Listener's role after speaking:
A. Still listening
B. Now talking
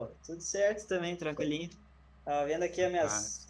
A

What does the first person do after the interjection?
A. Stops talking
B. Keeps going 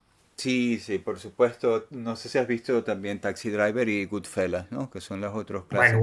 A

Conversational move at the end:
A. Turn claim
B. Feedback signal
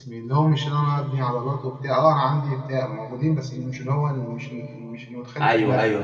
A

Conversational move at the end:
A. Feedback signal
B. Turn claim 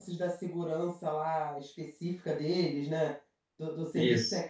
A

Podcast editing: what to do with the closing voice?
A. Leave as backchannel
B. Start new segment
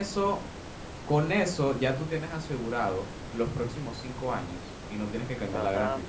B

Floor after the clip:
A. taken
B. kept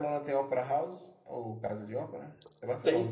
A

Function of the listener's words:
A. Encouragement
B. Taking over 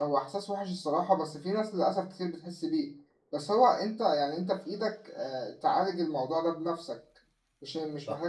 B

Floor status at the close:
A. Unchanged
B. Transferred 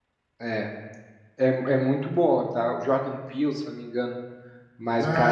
B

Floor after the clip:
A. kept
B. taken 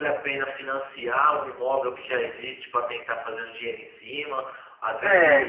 A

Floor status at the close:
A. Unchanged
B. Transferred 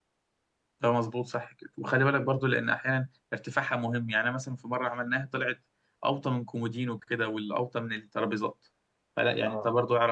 A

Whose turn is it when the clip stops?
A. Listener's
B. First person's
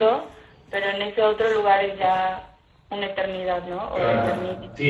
A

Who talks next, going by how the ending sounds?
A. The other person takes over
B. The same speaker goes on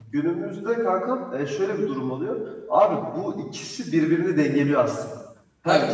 B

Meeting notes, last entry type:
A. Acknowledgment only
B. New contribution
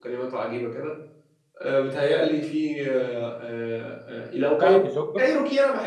A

